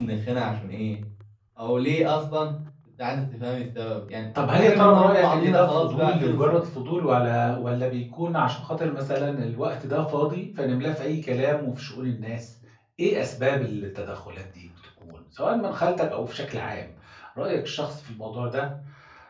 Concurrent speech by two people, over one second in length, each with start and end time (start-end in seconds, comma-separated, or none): 4.6-6.4